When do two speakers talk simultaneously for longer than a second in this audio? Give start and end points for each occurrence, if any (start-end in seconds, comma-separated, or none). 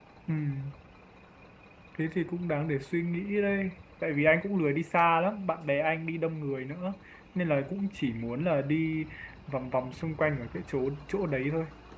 none